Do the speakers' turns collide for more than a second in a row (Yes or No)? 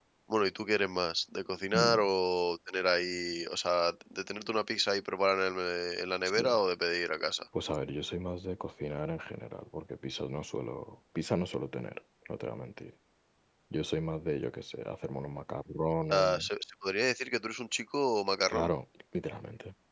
No